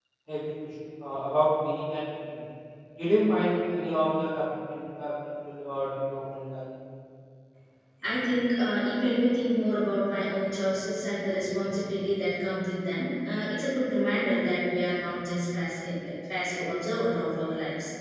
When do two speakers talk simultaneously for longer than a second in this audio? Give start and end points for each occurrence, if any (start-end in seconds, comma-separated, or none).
none